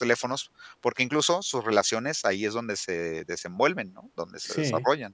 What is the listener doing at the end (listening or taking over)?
taking over